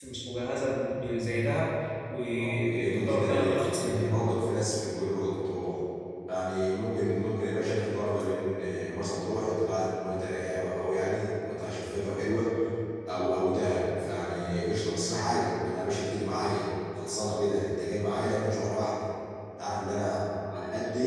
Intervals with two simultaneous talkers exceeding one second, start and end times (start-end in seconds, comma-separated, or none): 2.4-4.2